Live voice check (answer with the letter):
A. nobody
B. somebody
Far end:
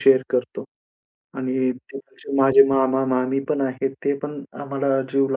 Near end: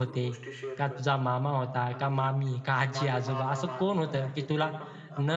B